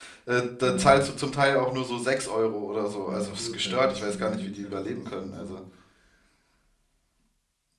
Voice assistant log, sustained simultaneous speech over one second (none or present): present